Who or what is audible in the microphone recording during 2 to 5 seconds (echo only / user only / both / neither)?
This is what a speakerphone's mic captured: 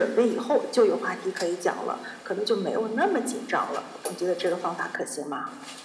echo only